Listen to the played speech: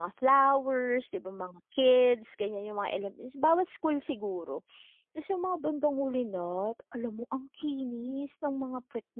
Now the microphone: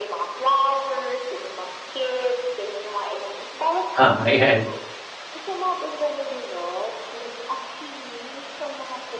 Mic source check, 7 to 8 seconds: echo only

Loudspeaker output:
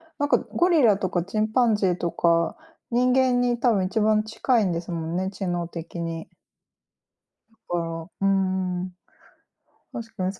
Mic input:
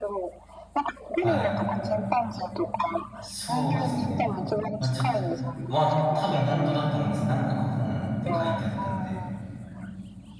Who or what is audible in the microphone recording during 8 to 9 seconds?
both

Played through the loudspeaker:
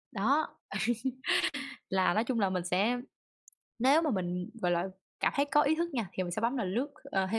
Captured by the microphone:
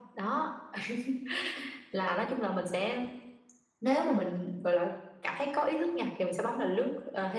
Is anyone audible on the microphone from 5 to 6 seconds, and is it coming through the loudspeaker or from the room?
echo only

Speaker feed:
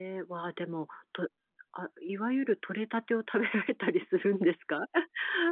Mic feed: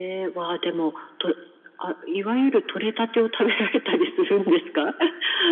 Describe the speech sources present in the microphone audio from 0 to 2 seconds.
echo only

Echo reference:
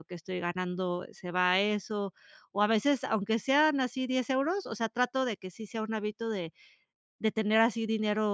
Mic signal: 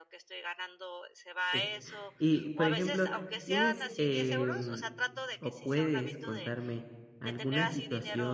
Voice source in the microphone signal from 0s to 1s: echo only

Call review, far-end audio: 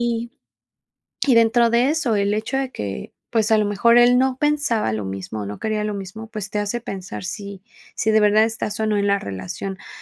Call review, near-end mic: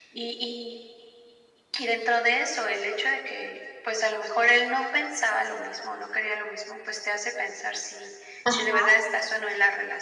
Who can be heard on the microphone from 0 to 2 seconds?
echo only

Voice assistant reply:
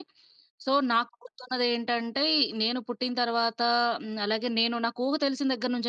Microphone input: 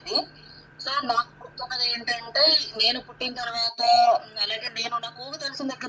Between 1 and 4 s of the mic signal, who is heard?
echo only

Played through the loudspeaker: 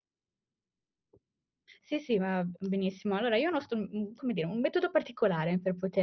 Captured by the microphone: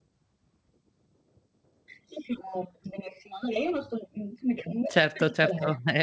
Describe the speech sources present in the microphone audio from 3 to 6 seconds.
both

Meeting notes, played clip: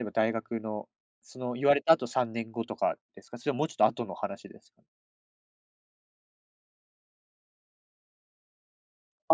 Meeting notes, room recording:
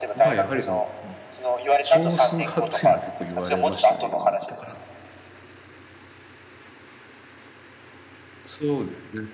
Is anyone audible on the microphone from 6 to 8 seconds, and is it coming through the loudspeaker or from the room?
neither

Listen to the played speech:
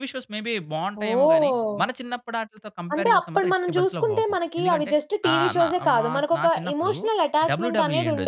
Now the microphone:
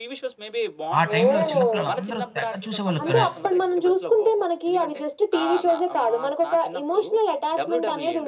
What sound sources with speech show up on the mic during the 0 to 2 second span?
both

